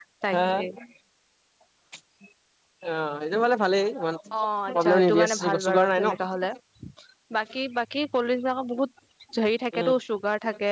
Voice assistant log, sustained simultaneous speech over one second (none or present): present